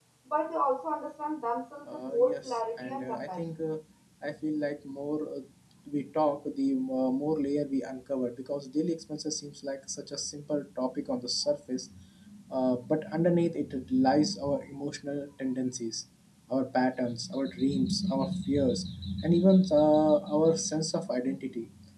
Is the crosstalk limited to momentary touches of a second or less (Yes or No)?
No